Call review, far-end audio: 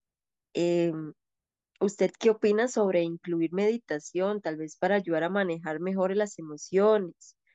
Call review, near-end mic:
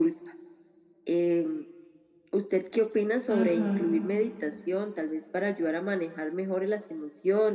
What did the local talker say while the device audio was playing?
Ujú,

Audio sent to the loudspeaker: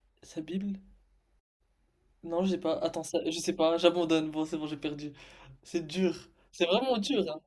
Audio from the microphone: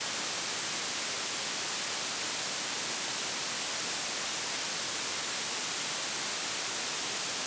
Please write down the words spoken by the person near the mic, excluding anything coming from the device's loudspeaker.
none

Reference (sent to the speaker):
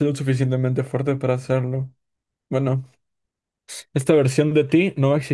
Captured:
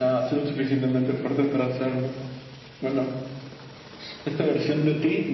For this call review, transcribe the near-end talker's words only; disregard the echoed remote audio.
none

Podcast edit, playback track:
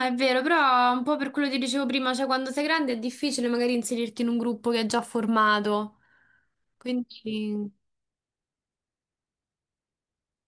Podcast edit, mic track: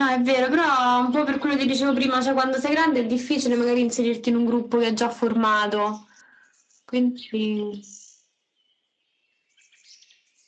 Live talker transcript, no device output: none

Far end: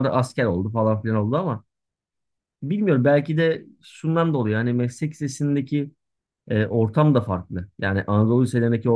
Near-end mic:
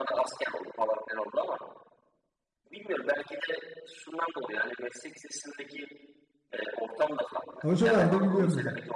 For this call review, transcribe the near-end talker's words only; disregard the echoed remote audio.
Hocalar da biliyor mesela.

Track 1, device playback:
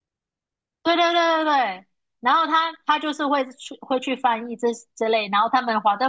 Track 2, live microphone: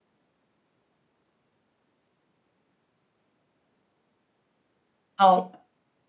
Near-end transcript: 好，

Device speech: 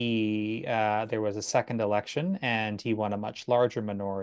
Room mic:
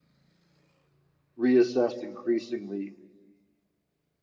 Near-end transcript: reassessed increasingly

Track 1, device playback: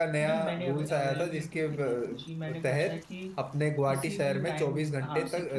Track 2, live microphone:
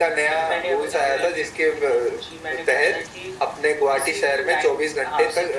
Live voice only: none

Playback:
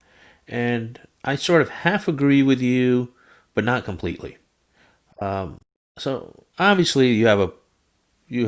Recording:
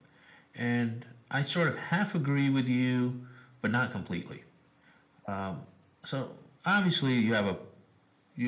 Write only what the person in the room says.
none

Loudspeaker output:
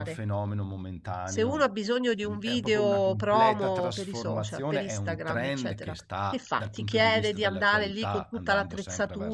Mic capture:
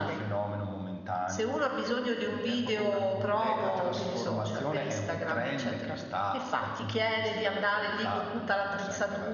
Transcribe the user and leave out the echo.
none

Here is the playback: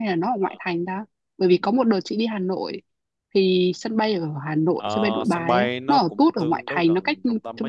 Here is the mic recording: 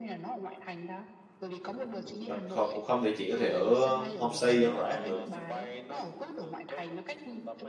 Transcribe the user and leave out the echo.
Thật- còn cũng không thì chị có thể ở um, homestay dân rã cũng được

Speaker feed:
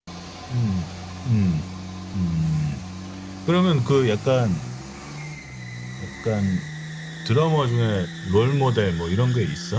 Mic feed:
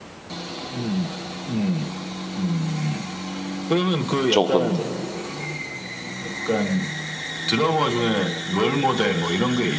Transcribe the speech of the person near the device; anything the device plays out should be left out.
조금

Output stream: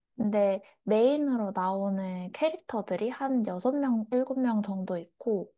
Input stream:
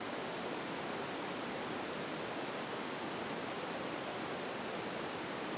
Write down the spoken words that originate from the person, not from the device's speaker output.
none

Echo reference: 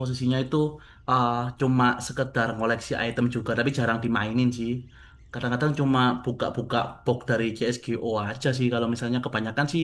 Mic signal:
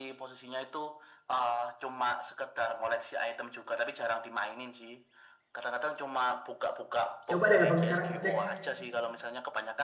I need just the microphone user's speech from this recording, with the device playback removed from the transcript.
Coba deh abang sekarang cek

